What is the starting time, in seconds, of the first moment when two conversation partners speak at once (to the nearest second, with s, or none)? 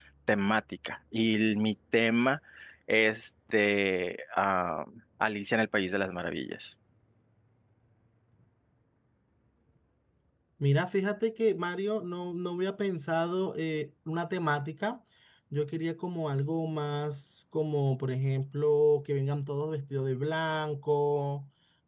none